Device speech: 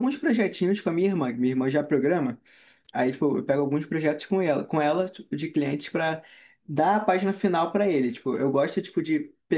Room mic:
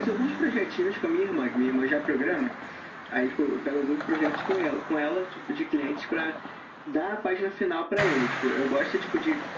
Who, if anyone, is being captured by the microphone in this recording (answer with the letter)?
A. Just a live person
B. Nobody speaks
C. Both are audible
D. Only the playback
D